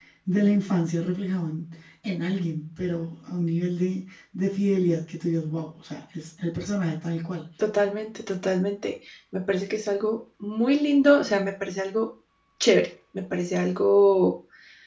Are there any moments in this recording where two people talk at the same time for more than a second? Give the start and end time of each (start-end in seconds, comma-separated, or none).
none